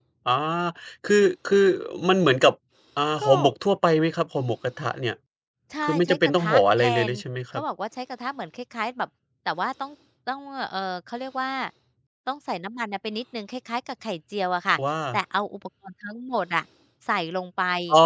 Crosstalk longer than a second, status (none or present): present